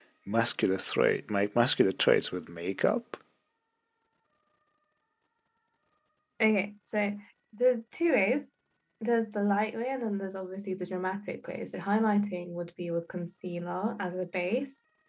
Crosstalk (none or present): none